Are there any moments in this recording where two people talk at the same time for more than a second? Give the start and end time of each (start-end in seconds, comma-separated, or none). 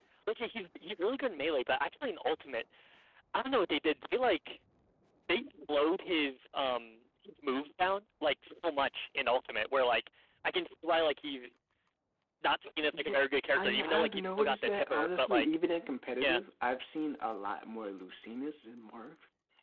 13.6-15.5